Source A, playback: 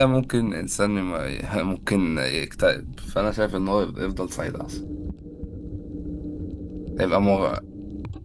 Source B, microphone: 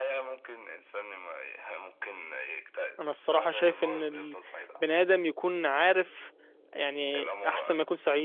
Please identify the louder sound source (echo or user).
user